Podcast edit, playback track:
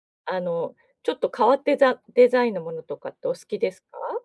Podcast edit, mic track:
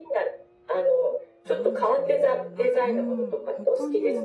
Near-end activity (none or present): present